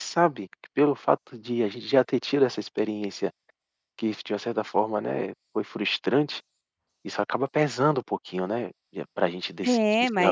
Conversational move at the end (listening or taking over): taking over